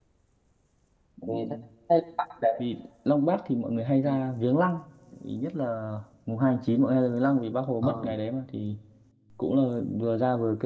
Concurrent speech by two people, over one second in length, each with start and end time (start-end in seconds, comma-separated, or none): none